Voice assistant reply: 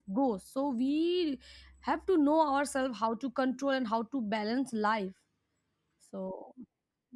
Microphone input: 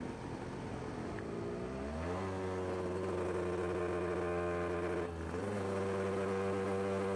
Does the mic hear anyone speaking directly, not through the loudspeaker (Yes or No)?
No